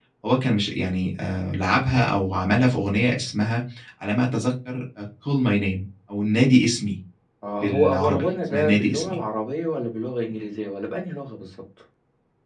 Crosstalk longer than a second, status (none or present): present